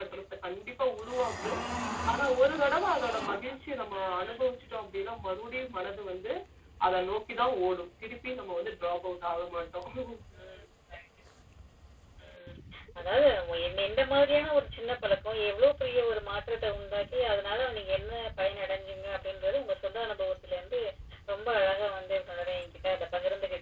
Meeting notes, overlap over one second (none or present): none